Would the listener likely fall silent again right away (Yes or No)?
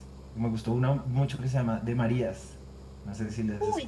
No